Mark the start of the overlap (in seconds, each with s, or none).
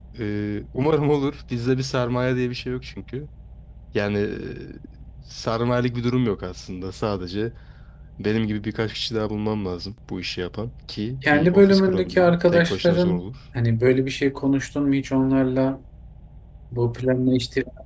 11.2 s